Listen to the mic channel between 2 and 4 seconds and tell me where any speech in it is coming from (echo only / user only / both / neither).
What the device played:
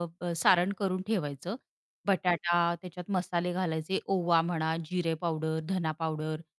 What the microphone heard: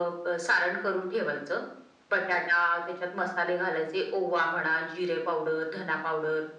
echo only